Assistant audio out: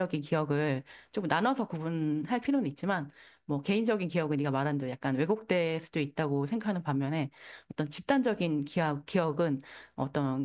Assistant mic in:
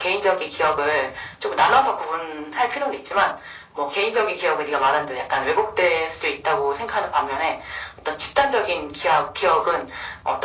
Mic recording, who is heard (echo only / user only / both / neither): echo only